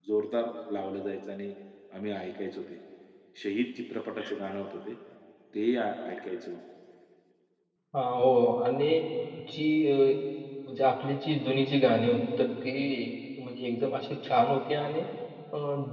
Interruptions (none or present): none